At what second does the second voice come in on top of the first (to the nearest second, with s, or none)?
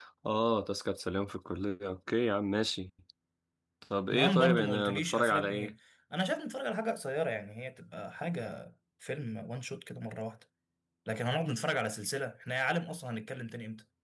4 s